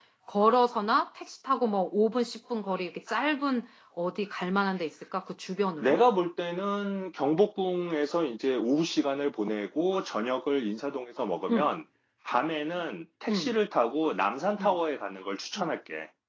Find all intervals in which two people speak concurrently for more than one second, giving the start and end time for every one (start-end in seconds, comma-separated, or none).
none